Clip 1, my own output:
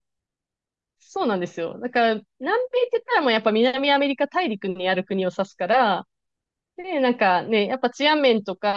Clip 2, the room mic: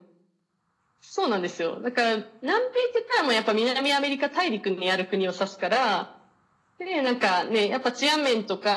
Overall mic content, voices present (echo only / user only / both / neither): echo only